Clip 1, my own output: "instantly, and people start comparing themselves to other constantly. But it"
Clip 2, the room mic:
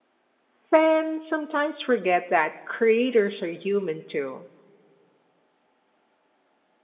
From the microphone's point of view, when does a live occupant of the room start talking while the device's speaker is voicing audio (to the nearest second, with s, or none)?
1 s